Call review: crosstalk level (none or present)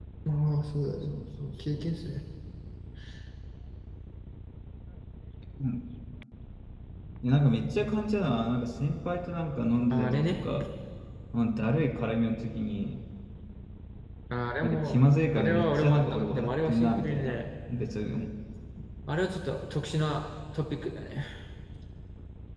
present